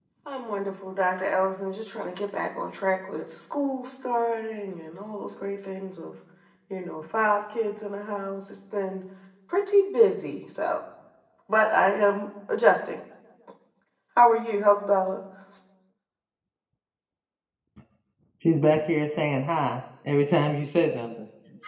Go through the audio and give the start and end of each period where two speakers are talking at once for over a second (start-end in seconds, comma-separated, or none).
none